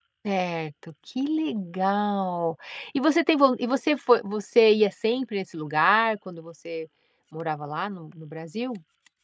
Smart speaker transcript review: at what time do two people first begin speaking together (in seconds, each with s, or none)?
none